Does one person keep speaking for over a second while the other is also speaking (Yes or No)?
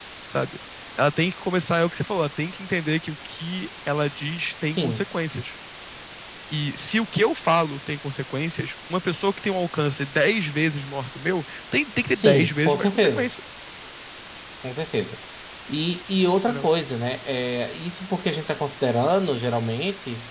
Yes